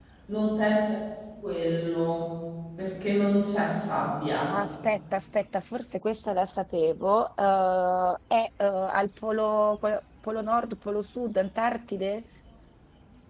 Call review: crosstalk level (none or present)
none